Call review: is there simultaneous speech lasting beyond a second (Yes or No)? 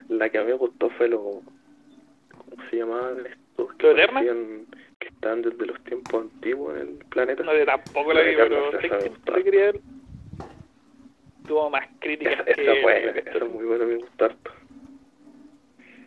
Yes